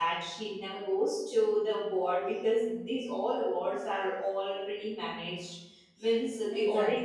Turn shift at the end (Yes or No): No